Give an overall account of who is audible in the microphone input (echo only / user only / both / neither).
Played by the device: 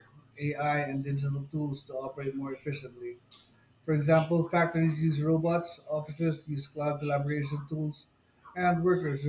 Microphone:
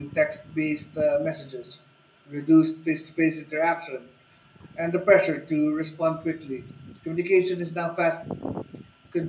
user only